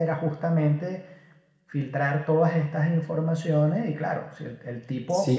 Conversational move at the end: taking over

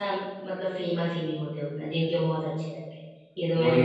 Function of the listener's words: taking over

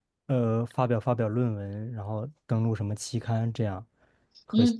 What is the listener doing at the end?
taking over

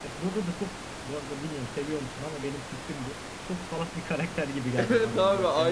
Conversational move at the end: taking over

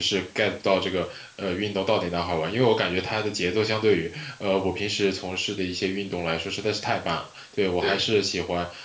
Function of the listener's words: listening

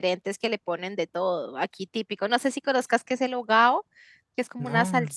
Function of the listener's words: listening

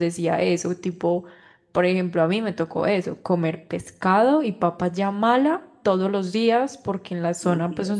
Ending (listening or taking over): listening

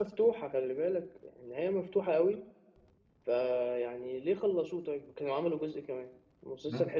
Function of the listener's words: listening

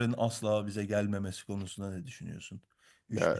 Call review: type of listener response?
listening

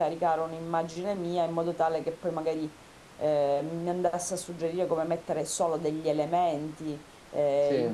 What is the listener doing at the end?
listening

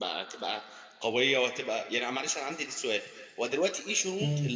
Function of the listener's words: listening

